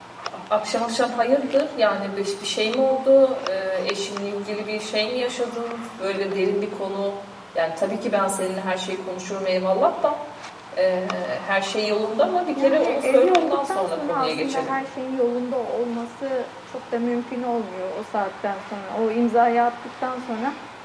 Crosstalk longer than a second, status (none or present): present